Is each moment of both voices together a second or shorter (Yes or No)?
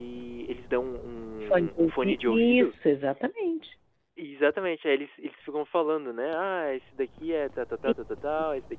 No